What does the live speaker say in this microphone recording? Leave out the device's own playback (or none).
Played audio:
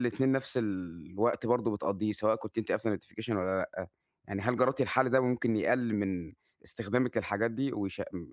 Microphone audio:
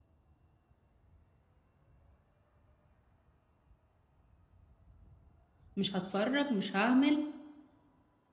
مش هاتفرّج، مش هاعمل،